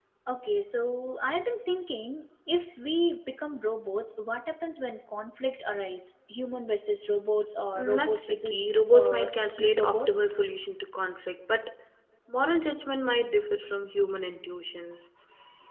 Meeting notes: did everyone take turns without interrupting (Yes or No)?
No